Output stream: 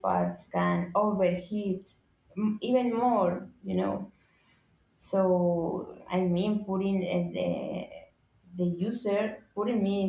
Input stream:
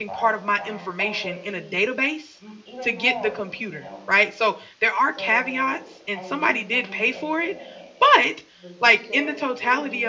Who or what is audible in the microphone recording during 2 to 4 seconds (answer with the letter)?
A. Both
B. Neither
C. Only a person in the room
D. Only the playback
A